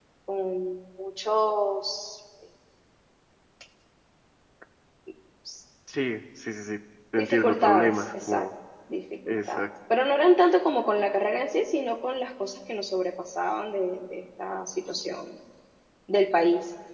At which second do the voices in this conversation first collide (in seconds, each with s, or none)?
7.2 s